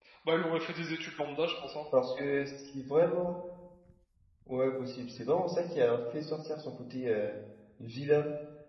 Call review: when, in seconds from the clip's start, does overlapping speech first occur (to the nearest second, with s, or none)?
none